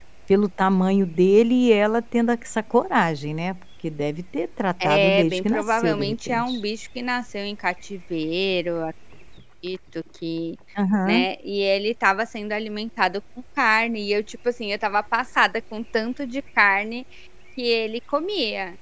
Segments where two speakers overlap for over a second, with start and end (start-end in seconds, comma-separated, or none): 4.8-6.5